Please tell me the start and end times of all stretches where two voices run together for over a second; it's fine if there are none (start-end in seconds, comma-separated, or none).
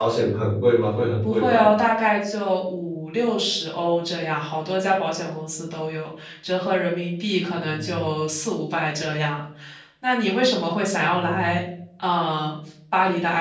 none